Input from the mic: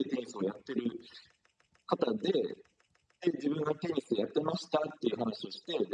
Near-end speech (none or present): none